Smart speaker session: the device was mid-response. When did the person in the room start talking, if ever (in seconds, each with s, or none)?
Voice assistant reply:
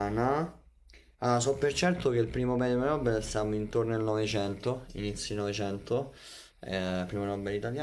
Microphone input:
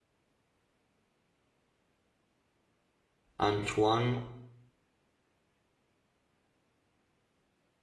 3.4 s